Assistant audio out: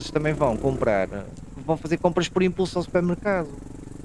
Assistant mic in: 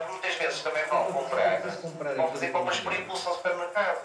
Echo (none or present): present